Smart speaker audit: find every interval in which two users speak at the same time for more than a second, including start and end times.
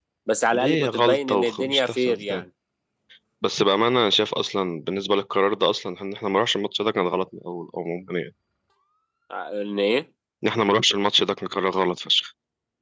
0.5-2.4

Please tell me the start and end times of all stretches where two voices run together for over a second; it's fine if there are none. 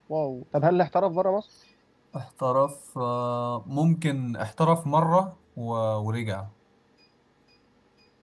none

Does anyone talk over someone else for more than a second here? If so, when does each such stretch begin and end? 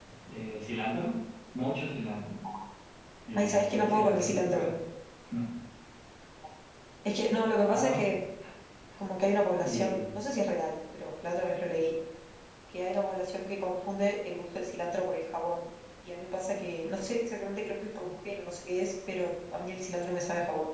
3.3-4.7

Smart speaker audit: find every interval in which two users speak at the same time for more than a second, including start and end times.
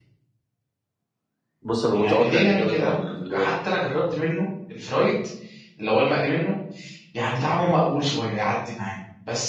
1.9-3.5

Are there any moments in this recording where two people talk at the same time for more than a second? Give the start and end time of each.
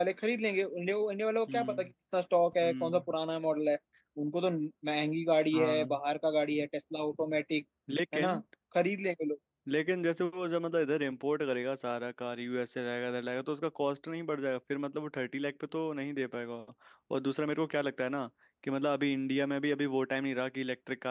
none

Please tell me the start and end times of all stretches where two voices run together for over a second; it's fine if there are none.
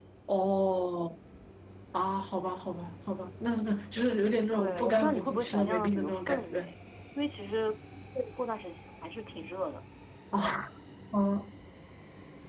4.5-6.7

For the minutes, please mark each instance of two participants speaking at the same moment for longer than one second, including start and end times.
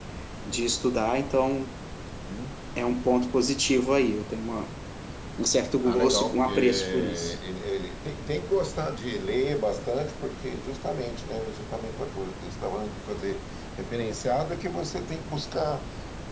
5.8-7.4

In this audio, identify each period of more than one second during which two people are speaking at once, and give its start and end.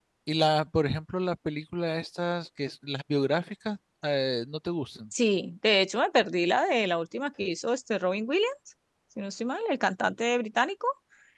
none

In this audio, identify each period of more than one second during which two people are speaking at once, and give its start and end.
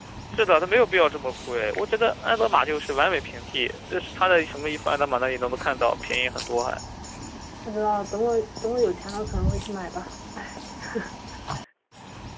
none

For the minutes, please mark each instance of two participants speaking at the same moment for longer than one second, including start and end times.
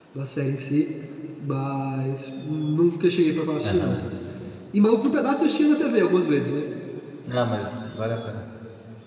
none

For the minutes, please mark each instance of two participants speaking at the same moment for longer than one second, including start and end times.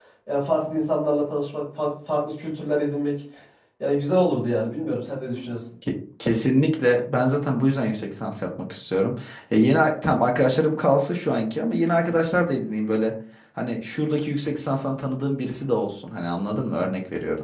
none

